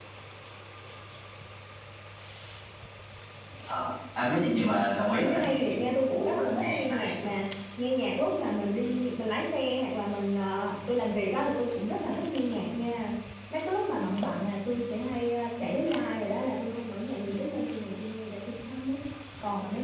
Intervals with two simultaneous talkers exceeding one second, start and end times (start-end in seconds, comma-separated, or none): 5.2-7.1